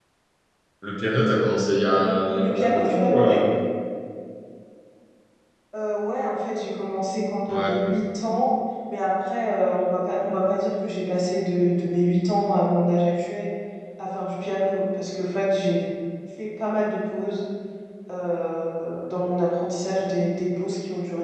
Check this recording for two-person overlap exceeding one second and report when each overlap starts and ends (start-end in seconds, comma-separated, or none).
1.9-3.4